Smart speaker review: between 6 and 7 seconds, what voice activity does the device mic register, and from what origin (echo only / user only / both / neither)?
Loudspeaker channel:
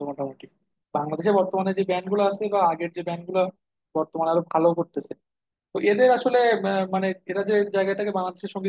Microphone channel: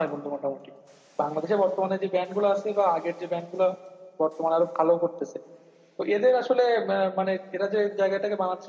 echo only